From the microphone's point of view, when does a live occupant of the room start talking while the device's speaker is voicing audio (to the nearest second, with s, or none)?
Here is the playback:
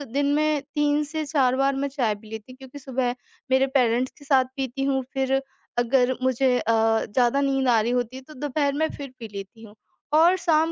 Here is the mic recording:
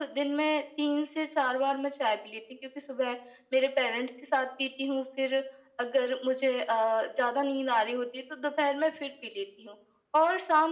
none